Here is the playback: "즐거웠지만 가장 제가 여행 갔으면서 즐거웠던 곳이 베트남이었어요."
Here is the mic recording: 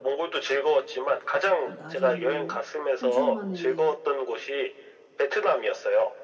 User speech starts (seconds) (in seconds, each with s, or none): 1.6 s